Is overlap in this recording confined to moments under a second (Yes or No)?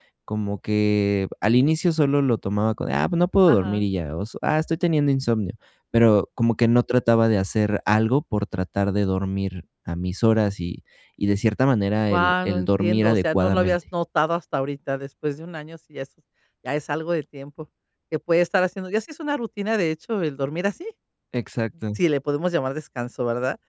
No